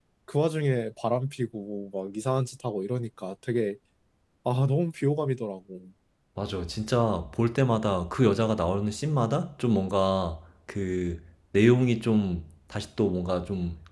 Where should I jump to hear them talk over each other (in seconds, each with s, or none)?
none